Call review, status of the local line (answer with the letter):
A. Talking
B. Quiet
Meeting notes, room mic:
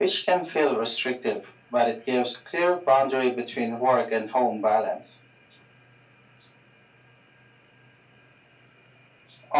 B